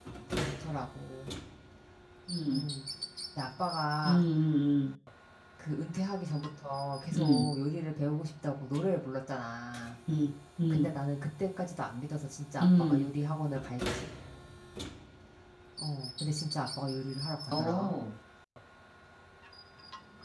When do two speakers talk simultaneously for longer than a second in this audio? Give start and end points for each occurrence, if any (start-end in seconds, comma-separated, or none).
none